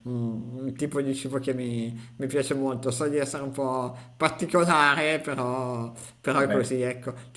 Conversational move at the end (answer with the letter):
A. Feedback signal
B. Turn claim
A